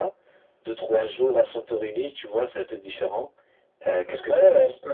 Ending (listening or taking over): taking over